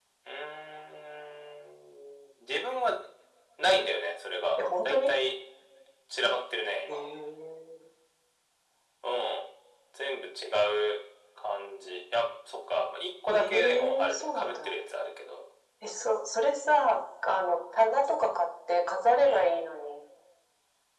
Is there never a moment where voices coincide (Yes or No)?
No